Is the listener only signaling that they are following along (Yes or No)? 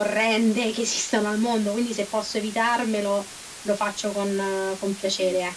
No